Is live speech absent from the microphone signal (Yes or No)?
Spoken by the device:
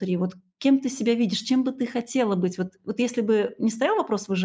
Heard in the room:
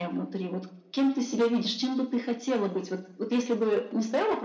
Yes